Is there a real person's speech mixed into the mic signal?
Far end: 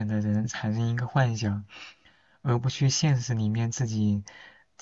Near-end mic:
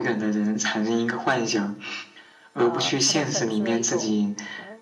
Yes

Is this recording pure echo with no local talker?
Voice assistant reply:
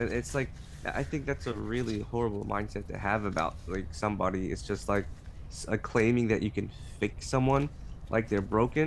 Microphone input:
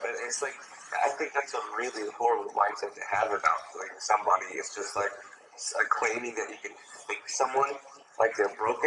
Yes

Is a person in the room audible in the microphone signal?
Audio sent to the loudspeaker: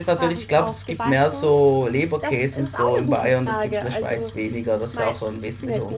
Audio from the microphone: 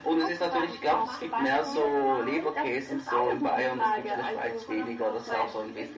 Yes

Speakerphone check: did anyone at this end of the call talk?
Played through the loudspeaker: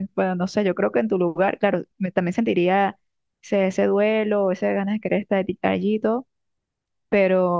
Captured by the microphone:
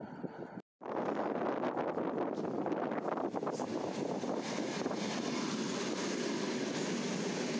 No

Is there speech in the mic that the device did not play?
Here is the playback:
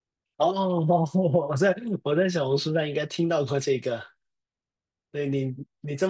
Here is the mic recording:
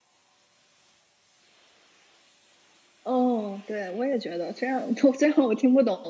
Yes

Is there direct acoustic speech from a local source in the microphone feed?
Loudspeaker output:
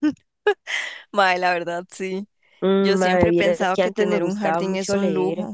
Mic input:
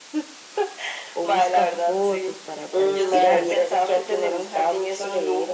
Yes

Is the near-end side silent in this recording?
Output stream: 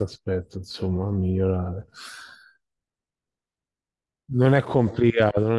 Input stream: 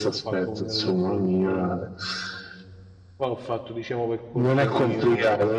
No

